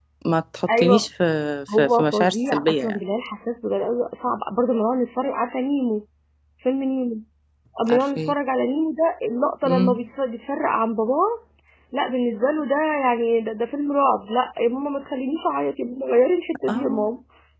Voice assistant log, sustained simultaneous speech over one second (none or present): present